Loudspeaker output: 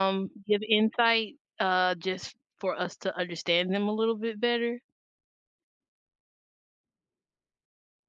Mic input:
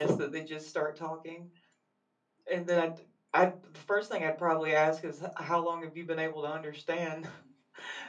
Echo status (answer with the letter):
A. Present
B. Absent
B